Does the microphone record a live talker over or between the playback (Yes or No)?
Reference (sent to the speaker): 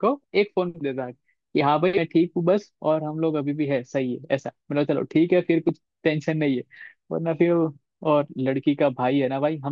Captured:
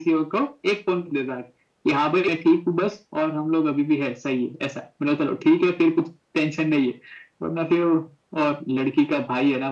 No